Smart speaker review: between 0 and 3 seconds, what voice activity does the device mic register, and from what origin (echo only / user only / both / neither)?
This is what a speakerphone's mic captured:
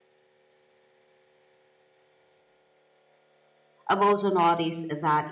neither